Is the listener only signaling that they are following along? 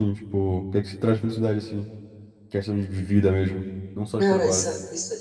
No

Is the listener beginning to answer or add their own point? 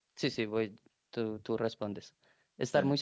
No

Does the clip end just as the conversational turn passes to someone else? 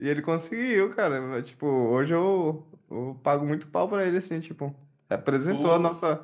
No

